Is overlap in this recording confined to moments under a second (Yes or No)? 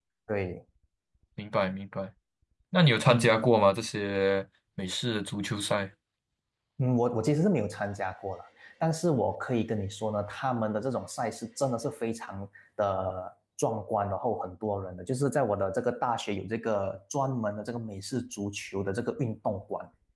Yes